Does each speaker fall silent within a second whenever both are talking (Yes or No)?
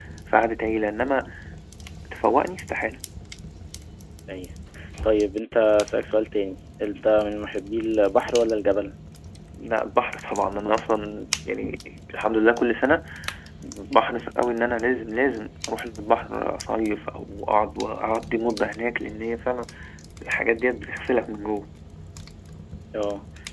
Yes